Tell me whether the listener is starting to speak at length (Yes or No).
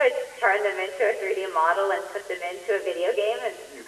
Yes